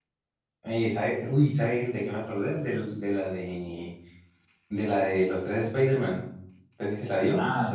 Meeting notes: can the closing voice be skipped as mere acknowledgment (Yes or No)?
No